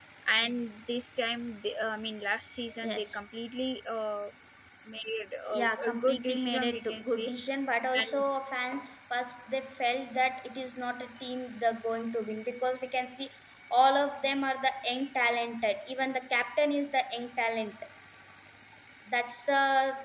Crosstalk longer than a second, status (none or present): present